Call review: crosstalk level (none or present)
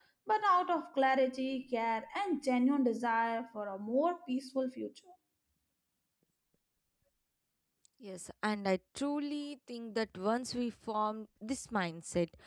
none